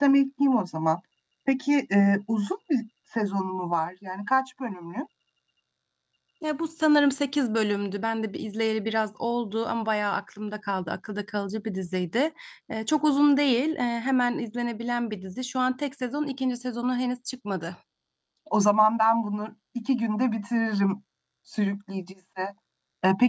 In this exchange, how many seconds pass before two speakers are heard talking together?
none

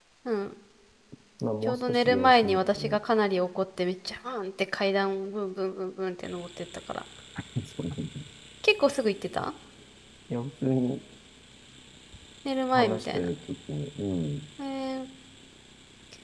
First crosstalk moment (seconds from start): 1.6 s

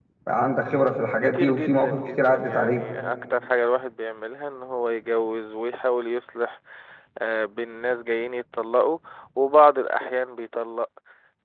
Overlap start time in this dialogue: 1.2 s

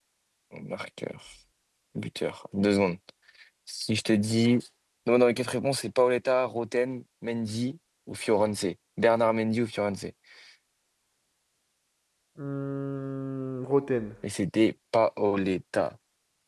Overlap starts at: none

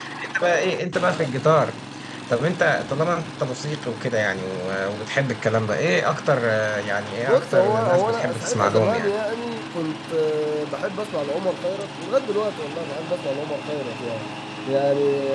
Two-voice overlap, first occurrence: 7.2 s

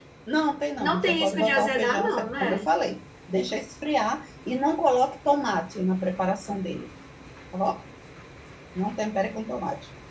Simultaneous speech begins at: 0.8 s

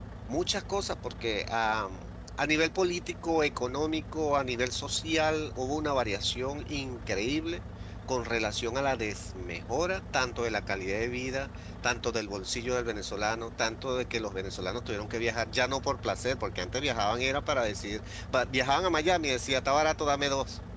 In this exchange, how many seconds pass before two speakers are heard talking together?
none

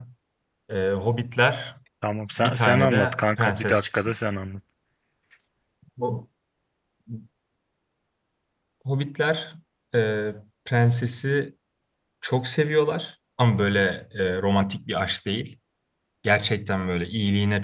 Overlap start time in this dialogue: 2.4 s

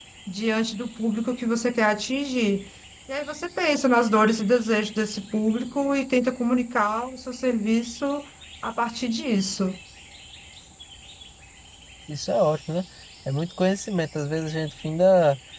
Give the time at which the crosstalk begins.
none

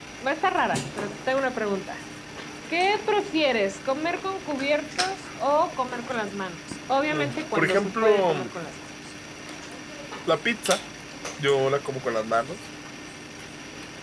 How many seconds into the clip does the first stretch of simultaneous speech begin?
7.1 s

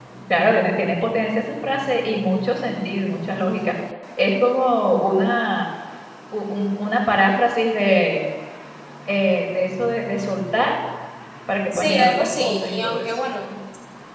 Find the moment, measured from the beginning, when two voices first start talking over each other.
11.7 s

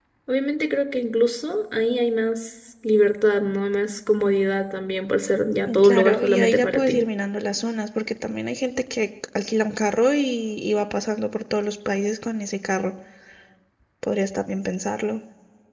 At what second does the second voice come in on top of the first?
5.7 s

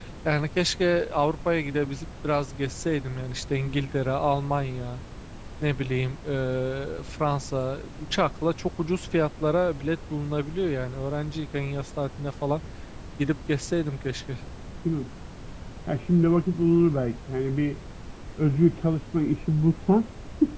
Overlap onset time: none

